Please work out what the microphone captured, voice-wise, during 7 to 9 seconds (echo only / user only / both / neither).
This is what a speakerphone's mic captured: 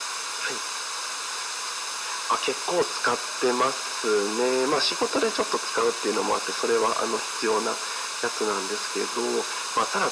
echo only